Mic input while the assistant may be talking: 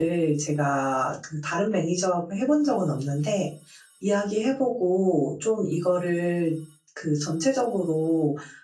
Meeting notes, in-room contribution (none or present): present